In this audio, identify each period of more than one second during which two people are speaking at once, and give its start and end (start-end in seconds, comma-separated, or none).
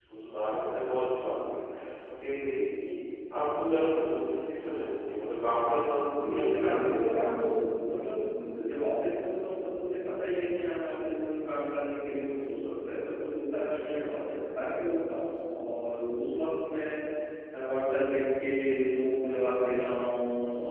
6.2-7.5